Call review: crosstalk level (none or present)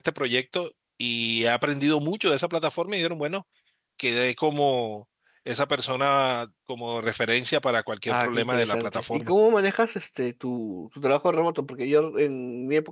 present